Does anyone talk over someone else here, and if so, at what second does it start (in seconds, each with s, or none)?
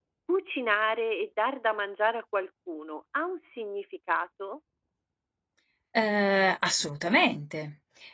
none